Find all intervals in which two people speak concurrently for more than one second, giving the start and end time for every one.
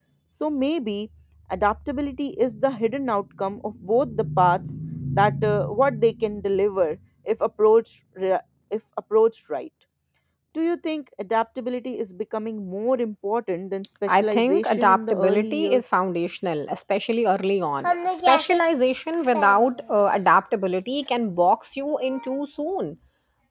14.1-15.8

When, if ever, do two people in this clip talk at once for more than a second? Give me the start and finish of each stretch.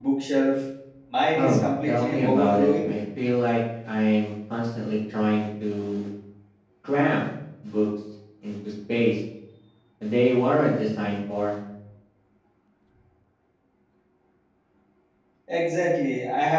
1.4-2.9

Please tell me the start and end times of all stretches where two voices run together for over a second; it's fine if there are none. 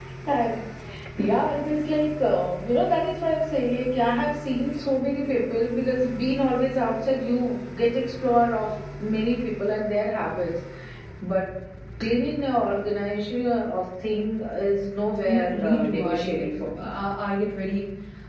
15.2-16.9

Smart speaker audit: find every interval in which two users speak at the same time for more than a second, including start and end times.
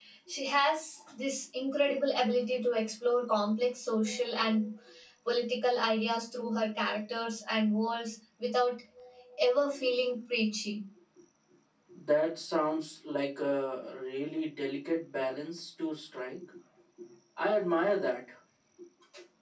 none

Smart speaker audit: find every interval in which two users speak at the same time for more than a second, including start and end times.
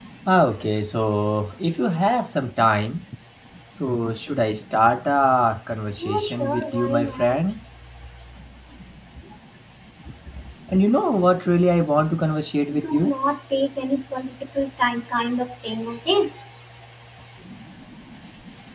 6.0-7.4

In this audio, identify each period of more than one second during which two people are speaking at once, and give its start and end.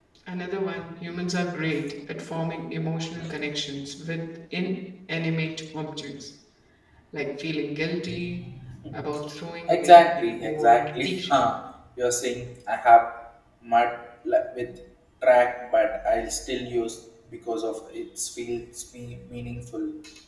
9.7-11.4

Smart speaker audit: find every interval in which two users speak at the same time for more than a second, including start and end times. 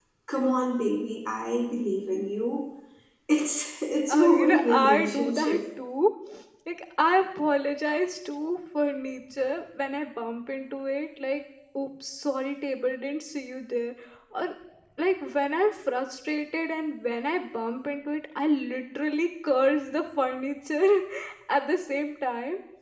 4.1-5.6

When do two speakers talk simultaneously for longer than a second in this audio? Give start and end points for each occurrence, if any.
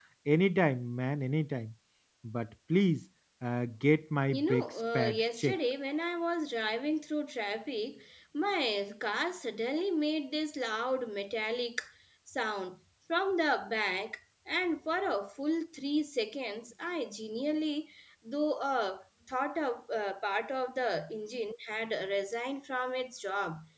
4.3-5.6

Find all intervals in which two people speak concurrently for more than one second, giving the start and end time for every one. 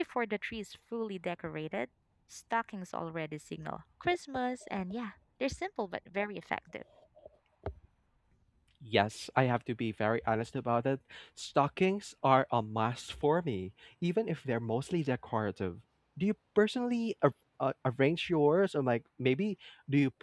none

